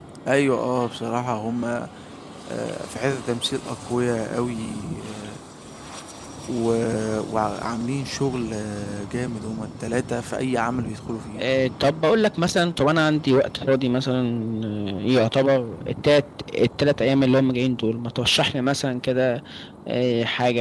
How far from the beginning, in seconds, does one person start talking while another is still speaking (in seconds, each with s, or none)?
none